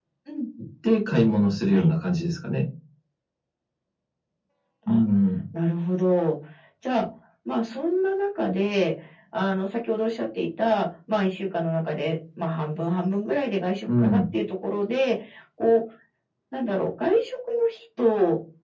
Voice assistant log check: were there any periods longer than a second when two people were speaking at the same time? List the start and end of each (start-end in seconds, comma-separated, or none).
none